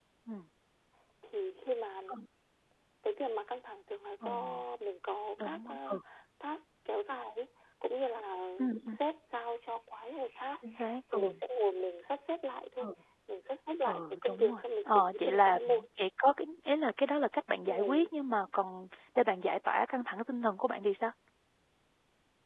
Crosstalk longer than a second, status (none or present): present